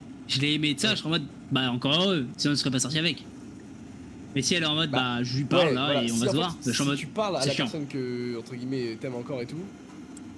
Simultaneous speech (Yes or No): Yes